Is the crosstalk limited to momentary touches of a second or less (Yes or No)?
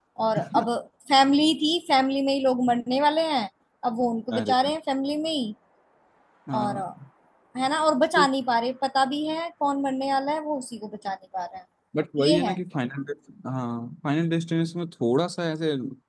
Yes